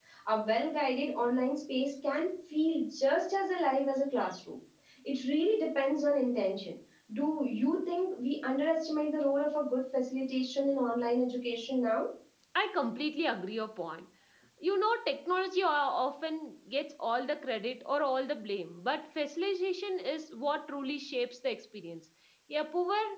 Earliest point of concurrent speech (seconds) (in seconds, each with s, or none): none